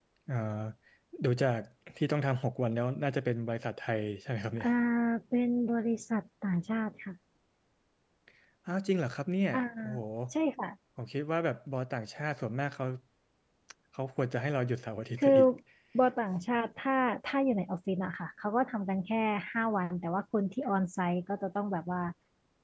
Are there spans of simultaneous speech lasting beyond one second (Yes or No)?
No